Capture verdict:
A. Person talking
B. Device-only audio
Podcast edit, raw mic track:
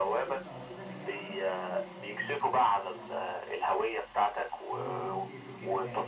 A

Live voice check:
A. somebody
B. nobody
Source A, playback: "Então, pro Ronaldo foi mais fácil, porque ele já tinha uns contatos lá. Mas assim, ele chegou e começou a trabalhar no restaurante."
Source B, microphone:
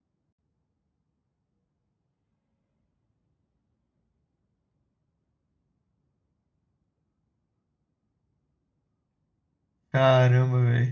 A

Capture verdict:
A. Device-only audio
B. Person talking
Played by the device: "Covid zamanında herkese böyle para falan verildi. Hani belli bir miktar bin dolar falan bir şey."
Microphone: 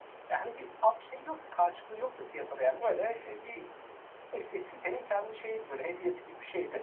B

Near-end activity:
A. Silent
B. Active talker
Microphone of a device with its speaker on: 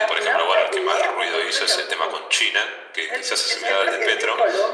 A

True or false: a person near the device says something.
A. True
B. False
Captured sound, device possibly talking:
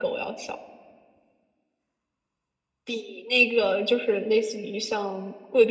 B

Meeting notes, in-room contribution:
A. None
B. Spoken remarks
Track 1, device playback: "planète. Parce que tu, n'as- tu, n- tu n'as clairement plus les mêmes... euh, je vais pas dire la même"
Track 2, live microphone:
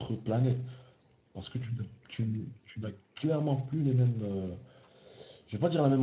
A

